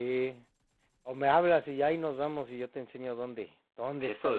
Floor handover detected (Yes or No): Yes